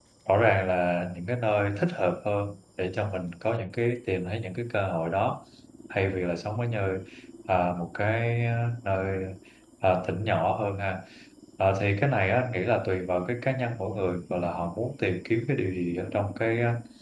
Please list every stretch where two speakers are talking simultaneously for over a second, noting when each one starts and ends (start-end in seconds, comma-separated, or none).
none